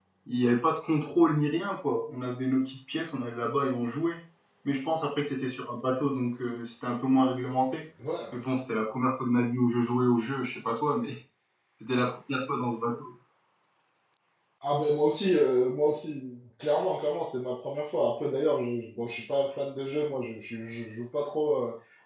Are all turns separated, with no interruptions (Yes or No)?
Yes